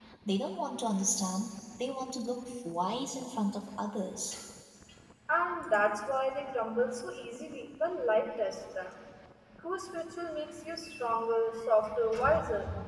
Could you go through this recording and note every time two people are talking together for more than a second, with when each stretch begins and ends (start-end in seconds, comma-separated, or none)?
none